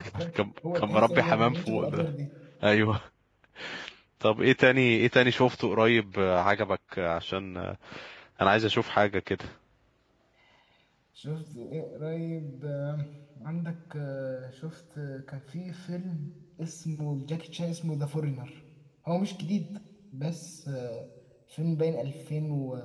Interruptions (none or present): present